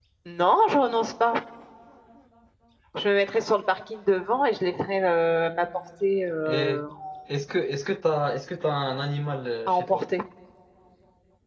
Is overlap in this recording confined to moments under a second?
Yes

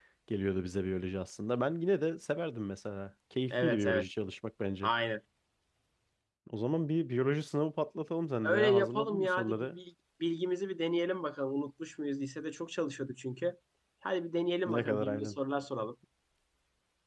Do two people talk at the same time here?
Yes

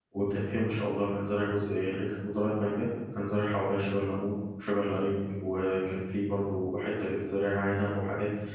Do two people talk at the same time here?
No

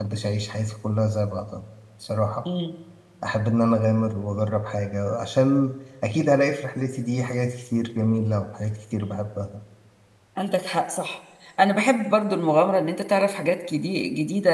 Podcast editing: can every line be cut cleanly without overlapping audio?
Yes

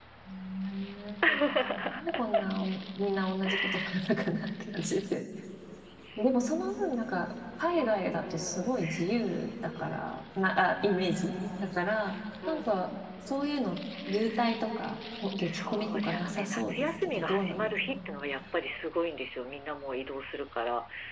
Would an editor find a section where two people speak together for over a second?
Yes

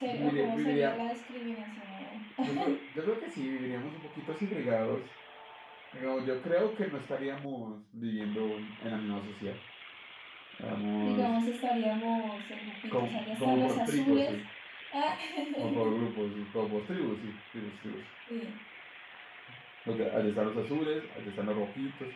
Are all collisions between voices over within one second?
No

